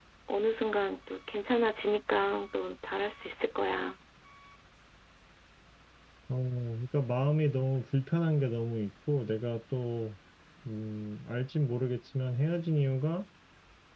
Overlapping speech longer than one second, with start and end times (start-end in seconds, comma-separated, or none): none